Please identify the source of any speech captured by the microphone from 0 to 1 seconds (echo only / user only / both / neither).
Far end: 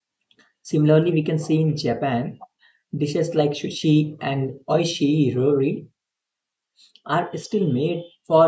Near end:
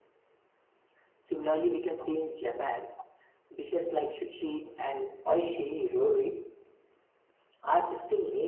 neither